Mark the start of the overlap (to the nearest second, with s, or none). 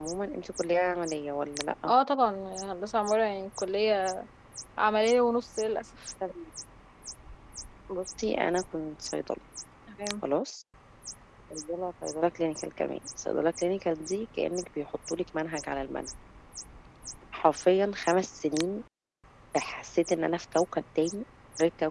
none